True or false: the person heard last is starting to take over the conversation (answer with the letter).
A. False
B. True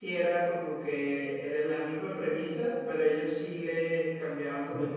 A